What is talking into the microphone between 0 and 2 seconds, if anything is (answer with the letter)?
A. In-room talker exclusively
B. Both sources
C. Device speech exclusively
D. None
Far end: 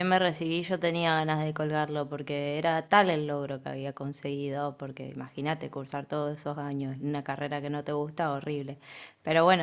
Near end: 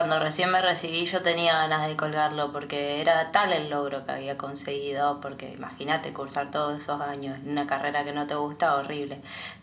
C